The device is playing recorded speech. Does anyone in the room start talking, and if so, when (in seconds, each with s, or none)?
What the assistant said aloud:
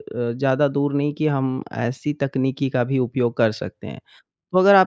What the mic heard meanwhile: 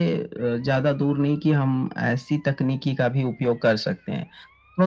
none